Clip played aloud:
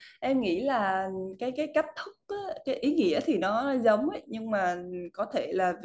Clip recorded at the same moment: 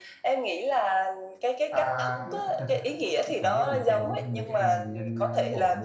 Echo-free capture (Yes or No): No